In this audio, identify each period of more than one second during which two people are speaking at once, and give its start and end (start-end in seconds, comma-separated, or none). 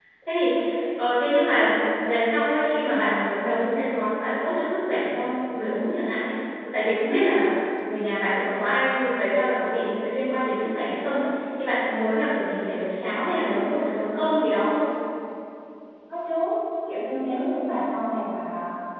none